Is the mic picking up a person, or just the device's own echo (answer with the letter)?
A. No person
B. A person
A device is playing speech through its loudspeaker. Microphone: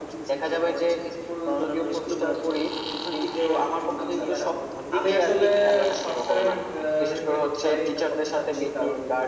B